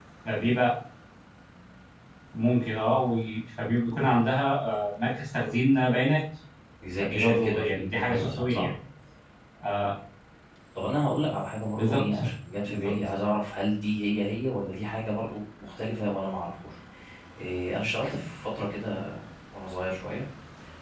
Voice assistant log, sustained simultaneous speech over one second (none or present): present